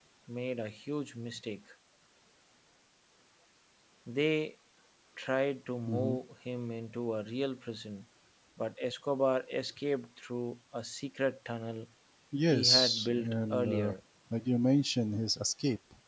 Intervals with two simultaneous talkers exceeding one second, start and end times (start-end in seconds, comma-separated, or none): 12.5-13.9